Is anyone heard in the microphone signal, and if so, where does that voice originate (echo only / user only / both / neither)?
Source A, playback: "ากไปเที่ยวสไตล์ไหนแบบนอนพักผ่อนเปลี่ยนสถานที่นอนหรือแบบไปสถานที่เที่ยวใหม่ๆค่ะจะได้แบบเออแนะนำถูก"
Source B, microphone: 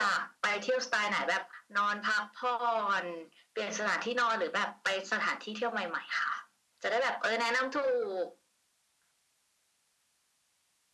echo only